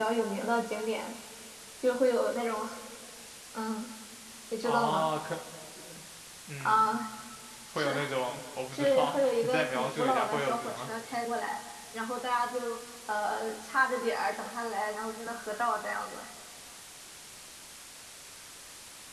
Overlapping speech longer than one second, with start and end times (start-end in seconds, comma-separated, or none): 8.7-10.9